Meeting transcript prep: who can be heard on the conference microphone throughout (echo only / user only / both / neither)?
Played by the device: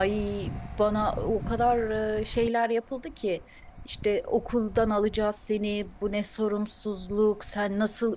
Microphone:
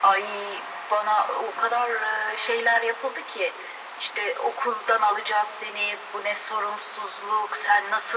echo only